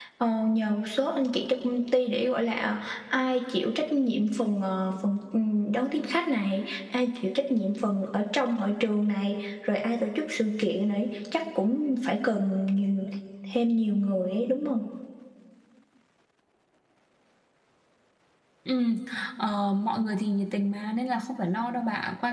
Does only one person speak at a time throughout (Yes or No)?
Yes